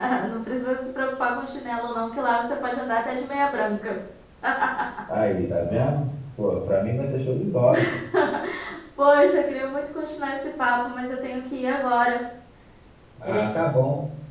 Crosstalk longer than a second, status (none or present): none